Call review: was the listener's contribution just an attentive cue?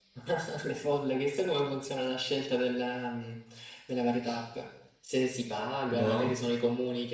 Yes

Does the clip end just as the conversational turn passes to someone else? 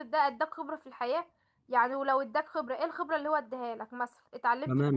Yes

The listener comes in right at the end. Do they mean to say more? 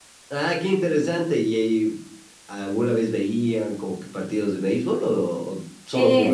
Yes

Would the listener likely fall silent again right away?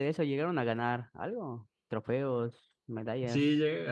No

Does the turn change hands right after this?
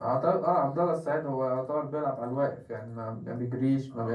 Yes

